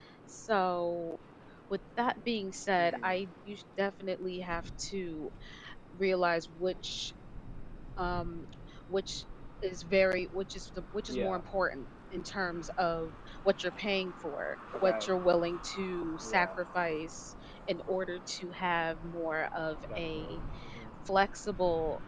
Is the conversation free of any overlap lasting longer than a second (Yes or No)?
Yes